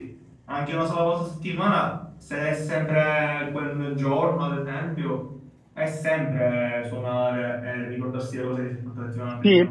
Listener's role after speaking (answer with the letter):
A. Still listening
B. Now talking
B